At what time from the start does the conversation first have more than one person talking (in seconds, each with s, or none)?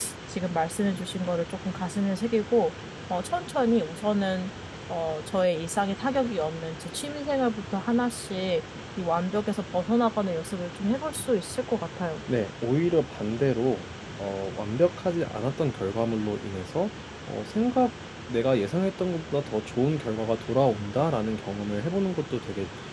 none